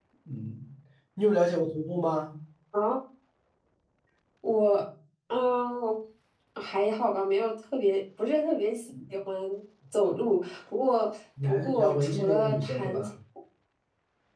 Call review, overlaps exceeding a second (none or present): present